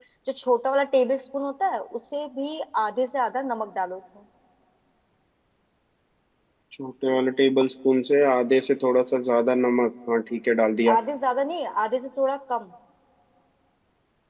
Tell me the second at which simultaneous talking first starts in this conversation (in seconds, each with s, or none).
none